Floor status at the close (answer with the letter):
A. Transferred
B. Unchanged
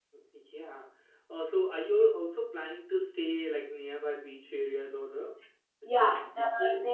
A